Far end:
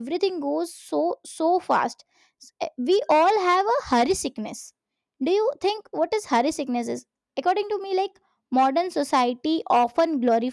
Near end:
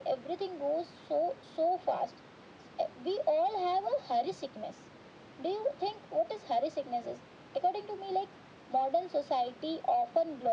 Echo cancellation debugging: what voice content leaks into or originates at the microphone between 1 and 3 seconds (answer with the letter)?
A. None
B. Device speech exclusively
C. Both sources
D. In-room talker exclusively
B